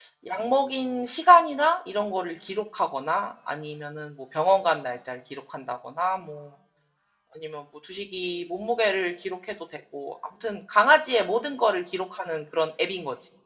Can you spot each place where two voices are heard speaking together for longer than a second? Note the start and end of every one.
none

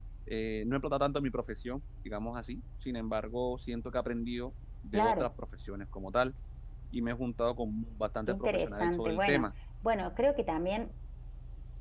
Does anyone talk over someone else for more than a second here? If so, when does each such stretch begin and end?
8.3-9.5

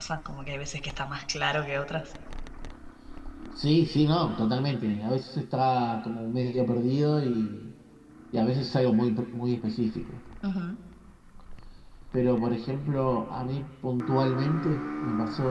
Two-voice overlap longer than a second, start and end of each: none

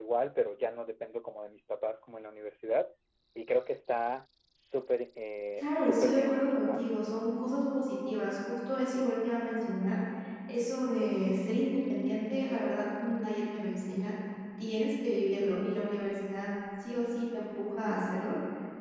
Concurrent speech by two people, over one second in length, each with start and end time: 5.6-6.8

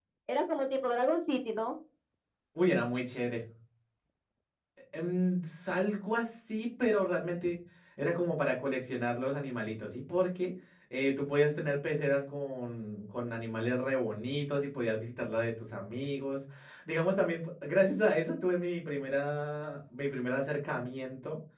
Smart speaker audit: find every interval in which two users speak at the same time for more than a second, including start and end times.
none

